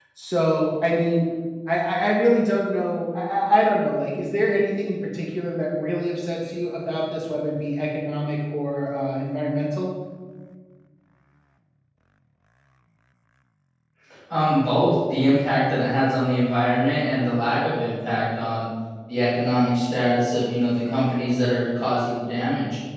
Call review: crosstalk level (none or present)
none